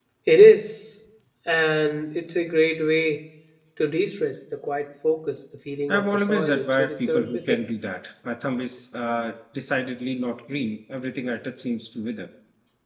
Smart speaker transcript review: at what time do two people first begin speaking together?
5.9 s

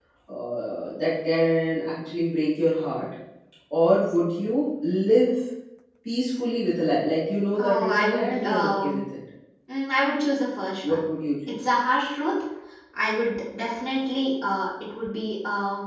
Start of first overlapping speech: 7.5 s

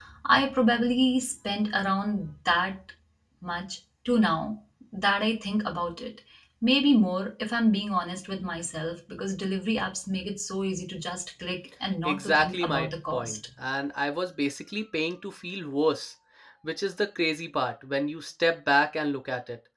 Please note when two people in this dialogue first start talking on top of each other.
12.0 s

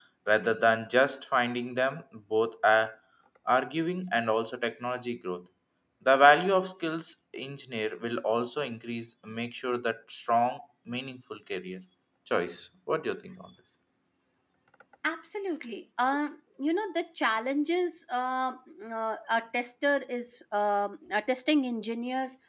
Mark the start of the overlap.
none

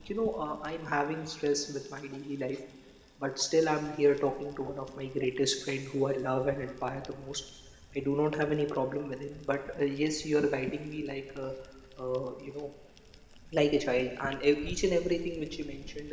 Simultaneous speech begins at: none

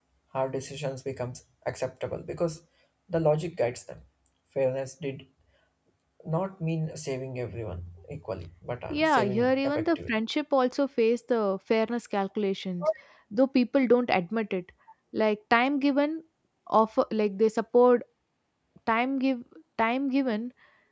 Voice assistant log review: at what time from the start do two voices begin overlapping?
8.9 s

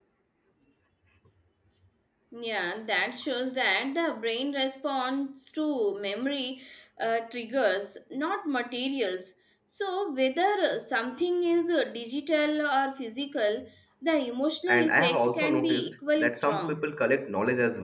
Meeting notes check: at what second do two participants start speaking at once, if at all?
14.7 s

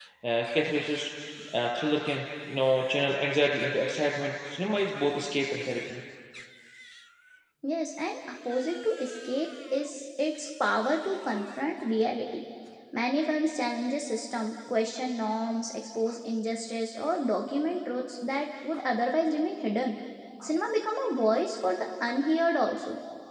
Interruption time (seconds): none

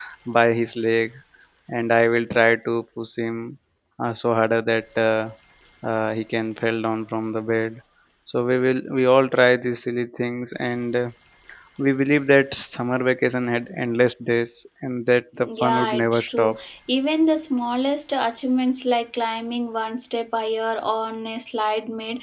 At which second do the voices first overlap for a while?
15.4 s

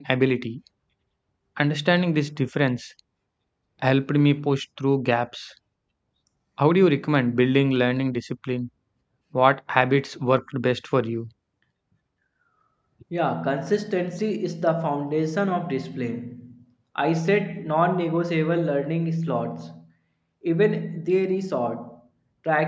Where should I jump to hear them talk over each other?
none

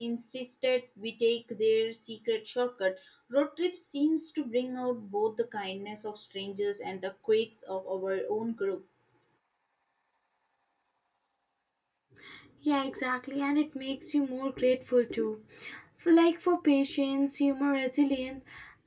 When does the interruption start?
none

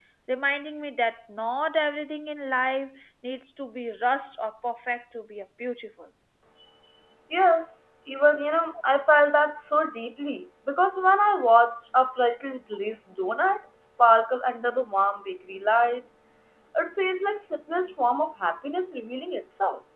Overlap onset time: none

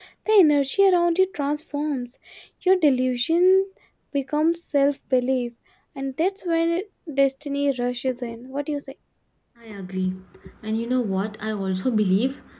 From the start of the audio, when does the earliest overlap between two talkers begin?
none

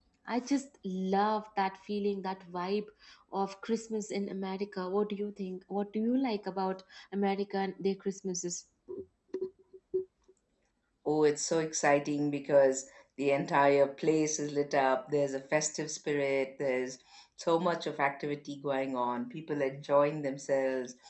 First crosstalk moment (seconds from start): none

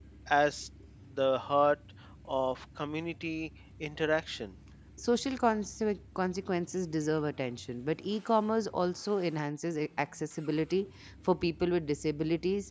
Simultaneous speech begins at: none

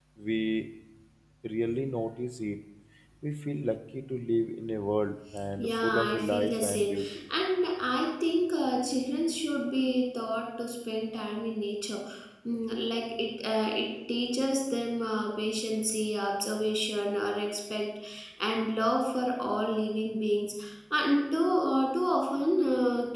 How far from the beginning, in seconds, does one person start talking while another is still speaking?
5.6 s

